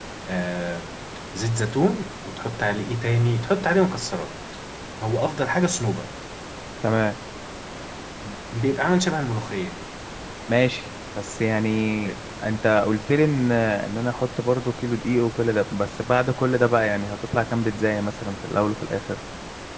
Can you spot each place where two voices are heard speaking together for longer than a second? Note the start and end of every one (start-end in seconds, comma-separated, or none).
none